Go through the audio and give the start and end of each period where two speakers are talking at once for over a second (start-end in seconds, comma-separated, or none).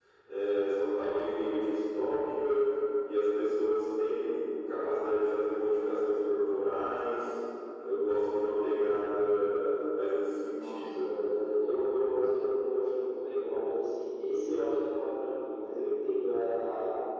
none